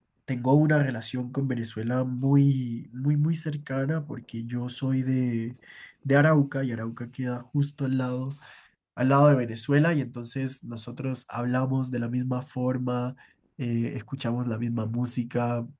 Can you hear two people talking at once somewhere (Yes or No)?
No